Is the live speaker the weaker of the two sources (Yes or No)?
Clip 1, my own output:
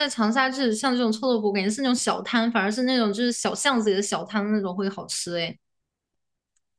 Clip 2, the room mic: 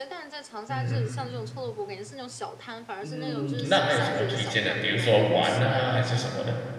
No